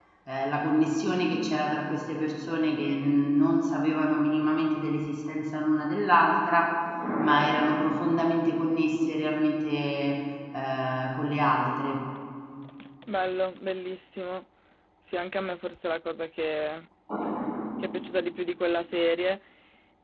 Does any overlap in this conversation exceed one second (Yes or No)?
No